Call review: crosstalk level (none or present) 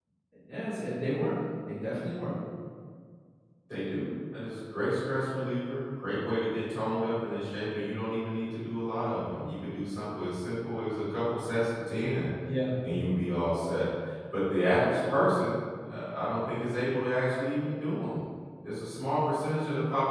none